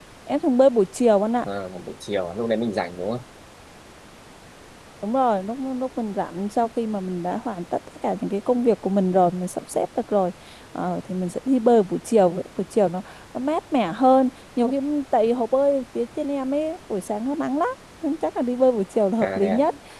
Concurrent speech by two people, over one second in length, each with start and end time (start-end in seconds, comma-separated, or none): none